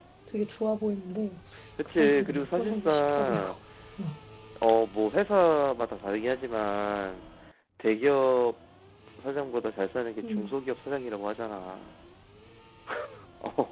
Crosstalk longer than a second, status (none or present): present